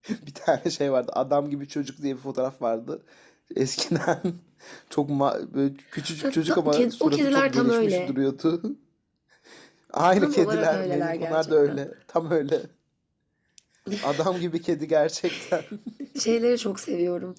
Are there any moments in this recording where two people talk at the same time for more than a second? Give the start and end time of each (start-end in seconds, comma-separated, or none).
6.2-8.1, 10.2-11.8